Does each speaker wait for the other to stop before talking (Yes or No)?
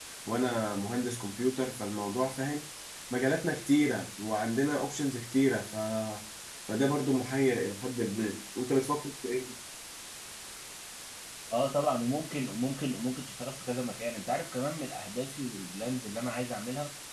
Yes